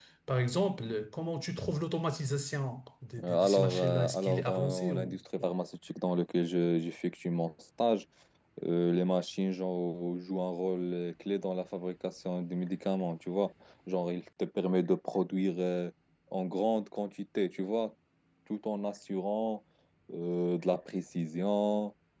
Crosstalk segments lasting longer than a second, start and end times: 3.2-5.5

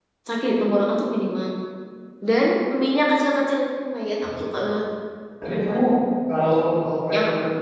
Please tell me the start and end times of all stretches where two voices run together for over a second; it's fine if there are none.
none

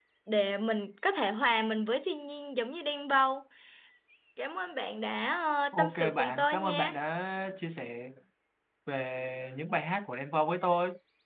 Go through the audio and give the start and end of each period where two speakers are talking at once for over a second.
5.7-6.9

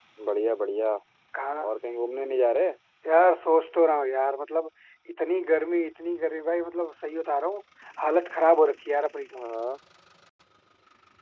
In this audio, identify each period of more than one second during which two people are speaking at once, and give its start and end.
none

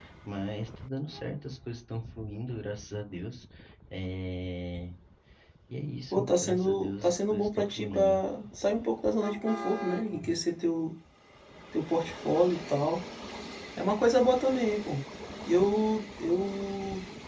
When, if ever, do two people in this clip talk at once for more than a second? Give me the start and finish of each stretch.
6.1-8.2

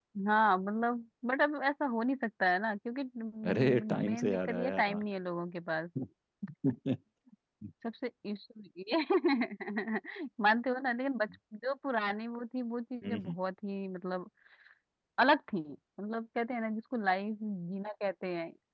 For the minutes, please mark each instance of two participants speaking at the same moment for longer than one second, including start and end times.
3.5-4.8

